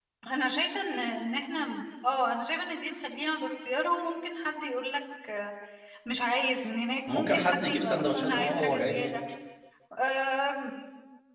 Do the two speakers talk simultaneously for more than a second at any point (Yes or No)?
Yes